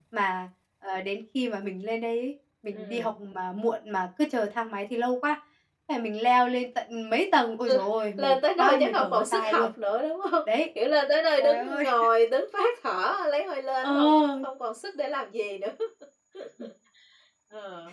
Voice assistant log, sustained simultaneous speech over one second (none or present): present